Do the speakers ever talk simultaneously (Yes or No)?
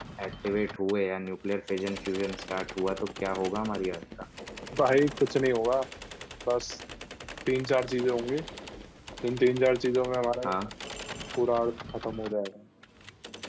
No